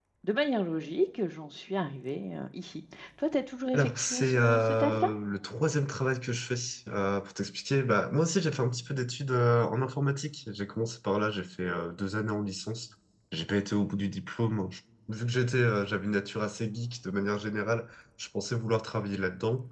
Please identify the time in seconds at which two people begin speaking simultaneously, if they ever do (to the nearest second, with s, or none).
4 s